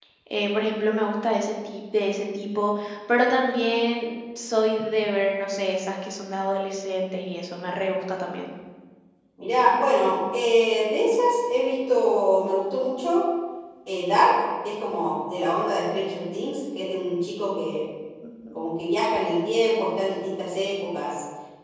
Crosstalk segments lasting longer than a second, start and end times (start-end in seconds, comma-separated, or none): none